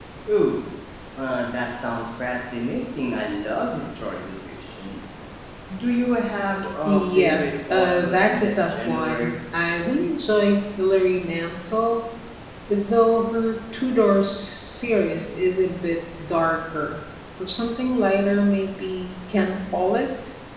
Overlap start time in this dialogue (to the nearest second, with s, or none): 7 s